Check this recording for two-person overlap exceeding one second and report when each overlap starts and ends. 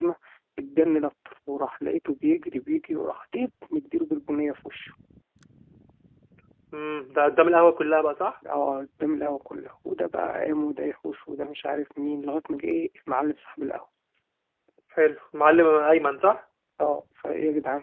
none

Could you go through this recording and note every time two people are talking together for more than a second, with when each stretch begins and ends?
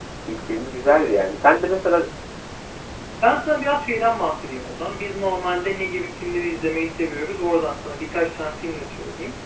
none

